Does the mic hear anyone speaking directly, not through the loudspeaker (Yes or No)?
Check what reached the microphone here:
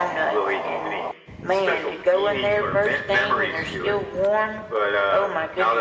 No